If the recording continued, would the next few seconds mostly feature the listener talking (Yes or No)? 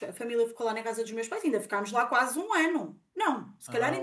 No